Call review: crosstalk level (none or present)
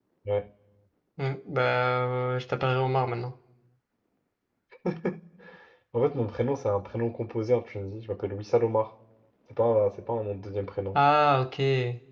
none